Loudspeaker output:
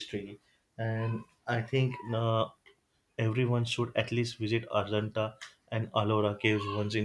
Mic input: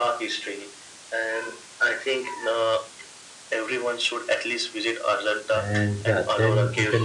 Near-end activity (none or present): present